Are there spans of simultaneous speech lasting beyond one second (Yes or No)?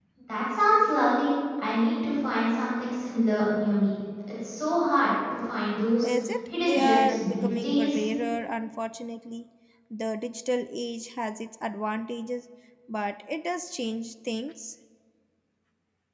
Yes